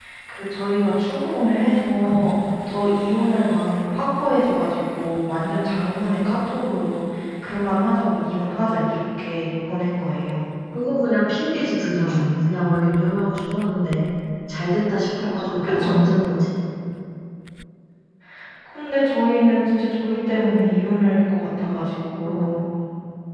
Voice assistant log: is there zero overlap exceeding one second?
Yes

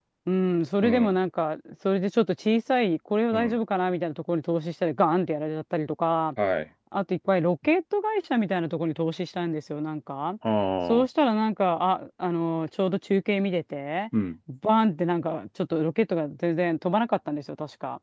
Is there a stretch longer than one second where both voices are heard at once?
No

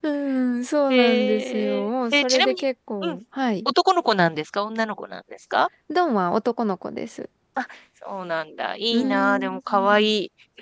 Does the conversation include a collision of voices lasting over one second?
Yes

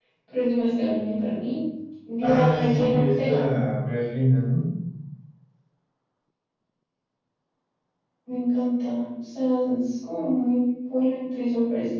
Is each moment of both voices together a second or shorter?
No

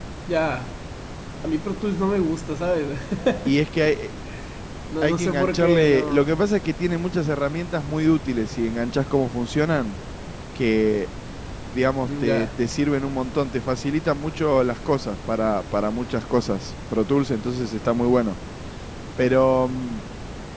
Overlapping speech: Yes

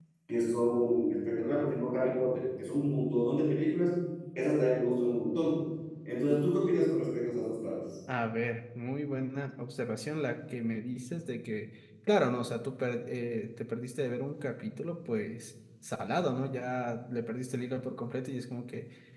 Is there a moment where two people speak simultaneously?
No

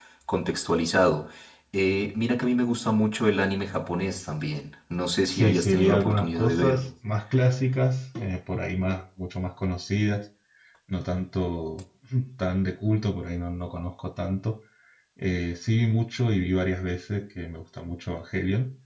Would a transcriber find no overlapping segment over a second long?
No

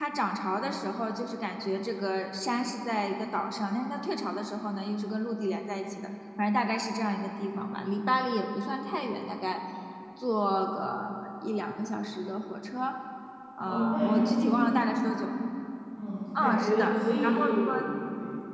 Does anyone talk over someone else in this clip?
Yes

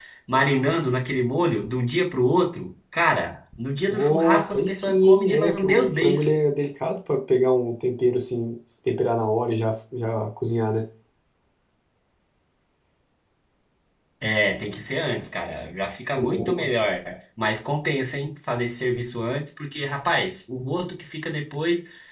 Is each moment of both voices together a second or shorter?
No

